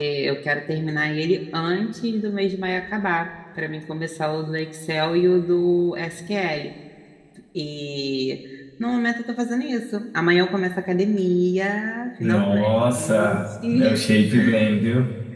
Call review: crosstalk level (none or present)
present